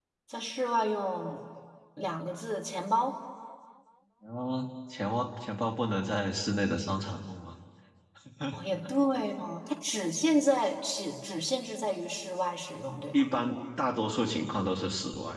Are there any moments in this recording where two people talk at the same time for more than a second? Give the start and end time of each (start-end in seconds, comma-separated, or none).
none